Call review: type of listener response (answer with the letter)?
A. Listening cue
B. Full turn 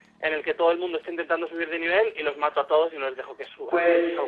B